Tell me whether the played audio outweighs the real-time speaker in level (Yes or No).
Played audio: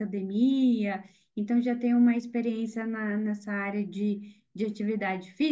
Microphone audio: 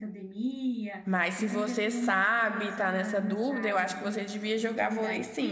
No